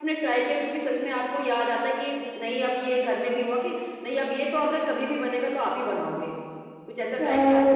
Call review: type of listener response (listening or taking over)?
taking over